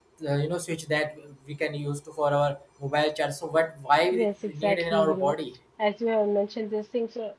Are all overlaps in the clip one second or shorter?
No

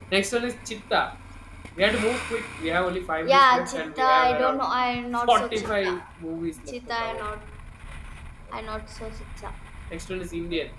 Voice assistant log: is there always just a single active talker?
No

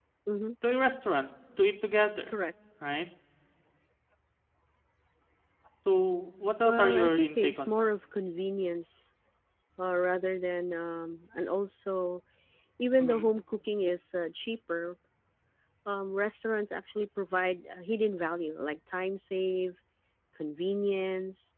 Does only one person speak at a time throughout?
No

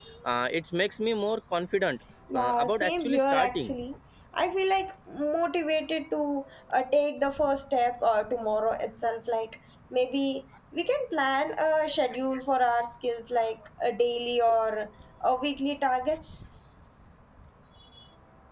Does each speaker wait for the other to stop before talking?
No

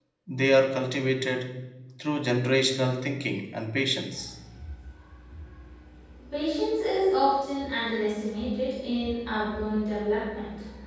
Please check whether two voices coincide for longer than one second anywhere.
No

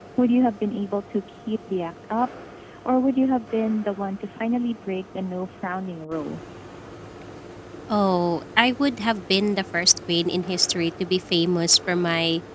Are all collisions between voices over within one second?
Yes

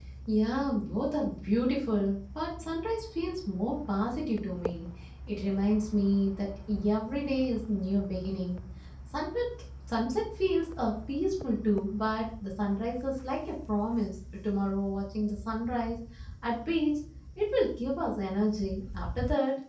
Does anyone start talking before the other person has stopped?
No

